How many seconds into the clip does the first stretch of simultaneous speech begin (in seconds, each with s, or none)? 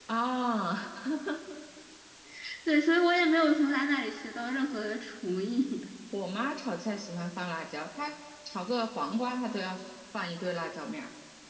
none